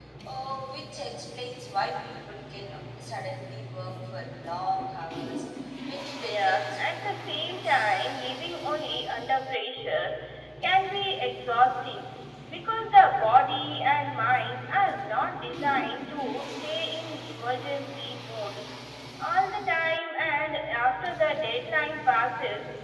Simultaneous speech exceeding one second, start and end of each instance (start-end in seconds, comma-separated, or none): 6.2-8.0